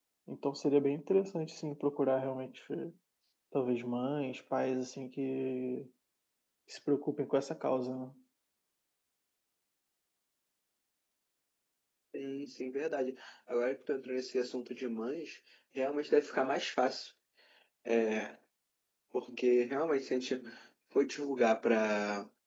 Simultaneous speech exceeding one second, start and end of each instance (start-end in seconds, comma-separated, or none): none